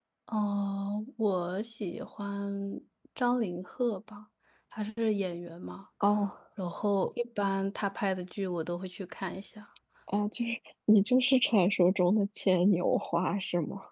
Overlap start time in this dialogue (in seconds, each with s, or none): none